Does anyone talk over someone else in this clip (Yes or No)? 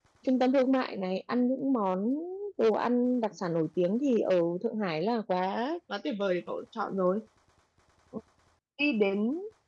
No